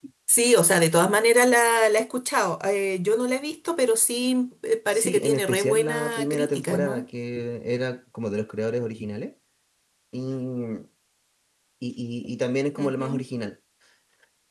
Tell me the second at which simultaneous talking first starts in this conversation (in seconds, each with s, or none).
4.9 s